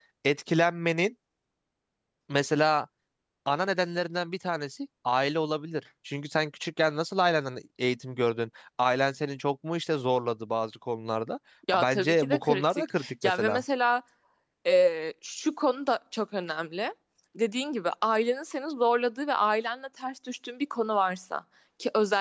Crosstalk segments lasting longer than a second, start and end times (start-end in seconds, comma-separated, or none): 11.8-13.6